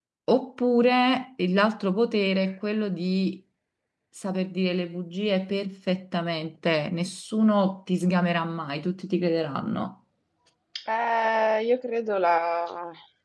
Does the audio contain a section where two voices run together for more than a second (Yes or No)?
No